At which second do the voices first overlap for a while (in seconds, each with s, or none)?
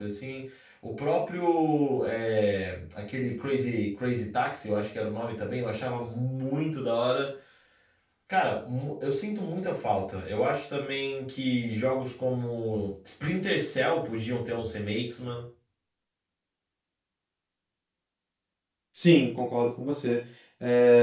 none